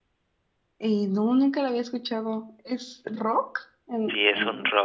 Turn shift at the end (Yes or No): Yes